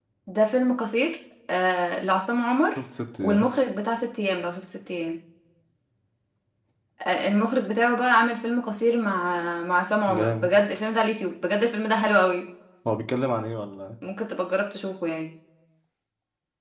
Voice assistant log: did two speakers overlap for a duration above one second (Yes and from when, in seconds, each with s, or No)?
No